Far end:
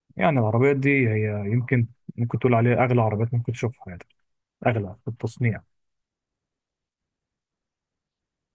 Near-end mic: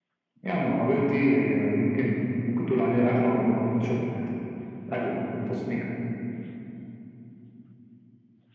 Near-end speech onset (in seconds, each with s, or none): none